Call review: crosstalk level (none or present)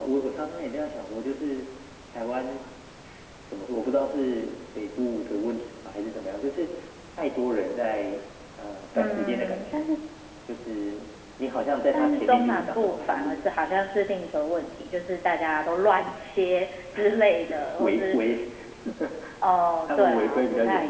present